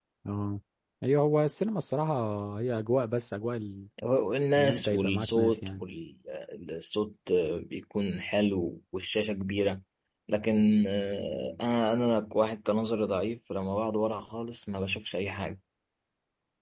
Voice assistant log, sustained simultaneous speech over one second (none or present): present